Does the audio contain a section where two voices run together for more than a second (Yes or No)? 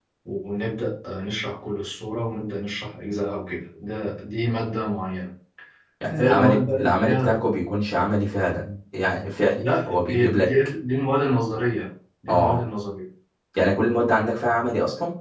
Yes